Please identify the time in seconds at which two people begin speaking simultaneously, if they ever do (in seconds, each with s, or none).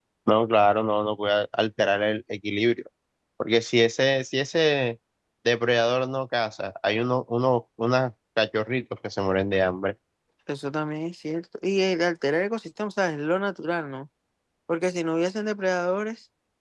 none